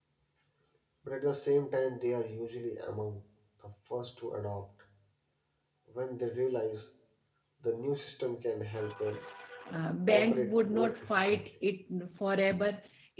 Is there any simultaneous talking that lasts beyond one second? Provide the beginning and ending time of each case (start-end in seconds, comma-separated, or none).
10.1-11.5